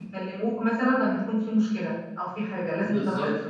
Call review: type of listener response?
taking over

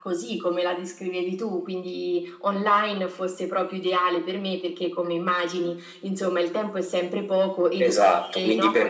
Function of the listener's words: taking over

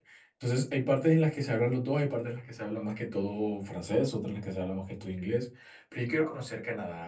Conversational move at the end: listening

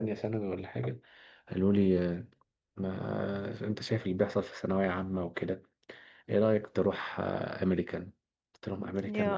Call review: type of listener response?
listening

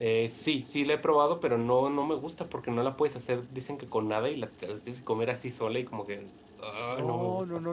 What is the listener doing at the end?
taking over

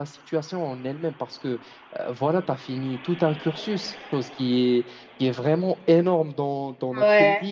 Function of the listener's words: listening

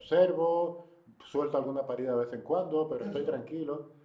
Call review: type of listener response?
listening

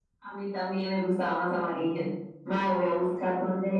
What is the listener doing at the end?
listening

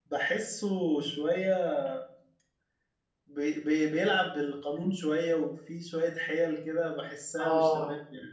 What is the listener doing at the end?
taking over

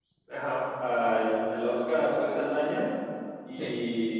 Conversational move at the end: listening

